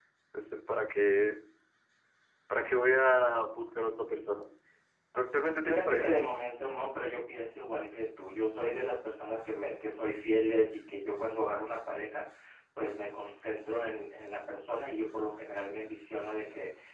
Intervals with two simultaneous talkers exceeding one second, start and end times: none

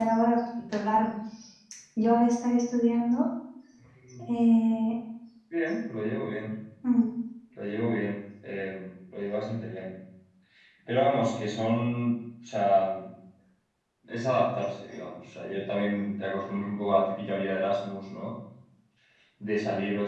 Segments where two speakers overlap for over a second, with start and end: none

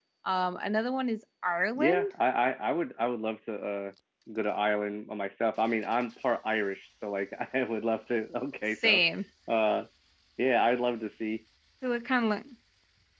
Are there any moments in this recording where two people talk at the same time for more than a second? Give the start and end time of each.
none

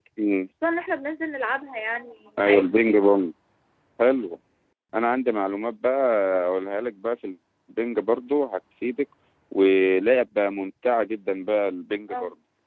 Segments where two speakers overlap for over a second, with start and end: none

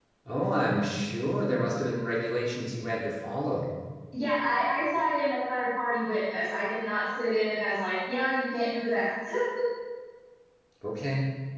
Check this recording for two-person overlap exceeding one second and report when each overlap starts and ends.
none

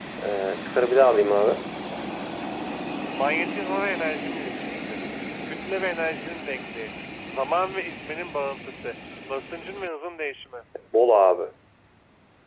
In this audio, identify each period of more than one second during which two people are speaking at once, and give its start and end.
none

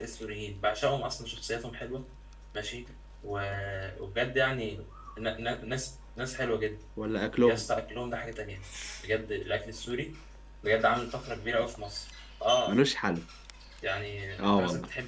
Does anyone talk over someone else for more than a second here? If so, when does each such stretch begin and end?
none

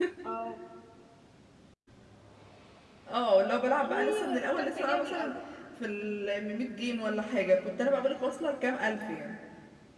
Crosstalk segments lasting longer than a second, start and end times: 3.8-5.3

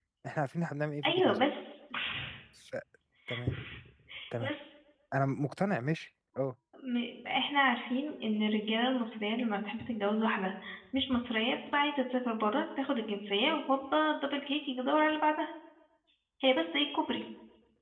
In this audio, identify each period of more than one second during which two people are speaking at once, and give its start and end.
none

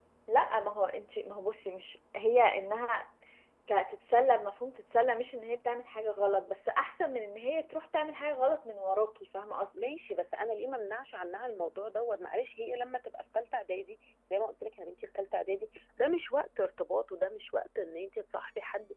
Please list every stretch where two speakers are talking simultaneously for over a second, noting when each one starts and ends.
none

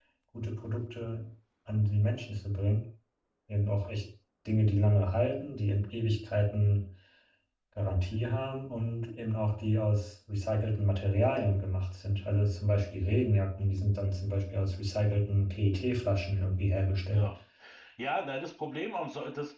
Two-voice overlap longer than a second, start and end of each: none

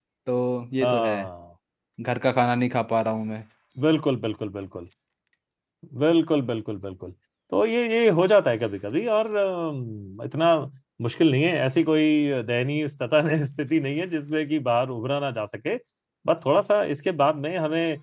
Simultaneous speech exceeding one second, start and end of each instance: none

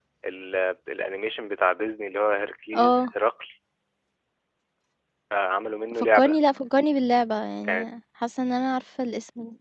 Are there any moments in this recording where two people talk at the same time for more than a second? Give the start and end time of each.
none

